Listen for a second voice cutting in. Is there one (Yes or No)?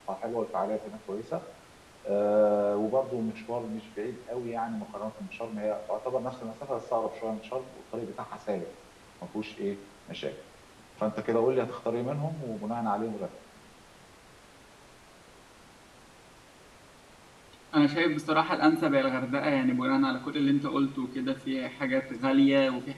No